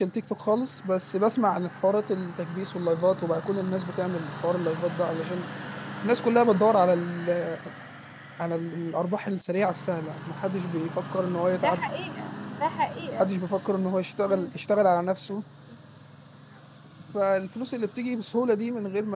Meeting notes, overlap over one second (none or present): none